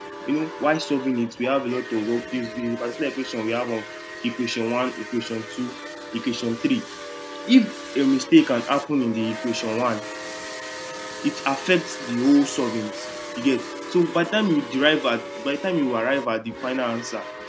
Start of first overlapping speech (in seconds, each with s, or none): none